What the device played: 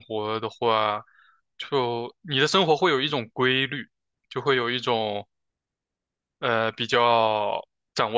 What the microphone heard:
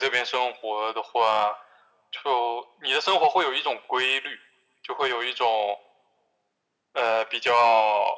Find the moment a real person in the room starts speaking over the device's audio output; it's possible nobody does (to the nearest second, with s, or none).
none